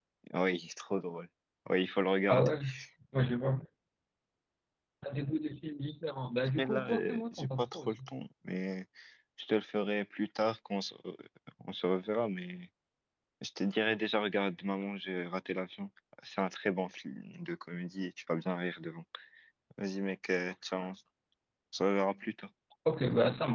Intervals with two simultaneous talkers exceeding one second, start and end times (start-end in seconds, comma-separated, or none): 6.6-8.0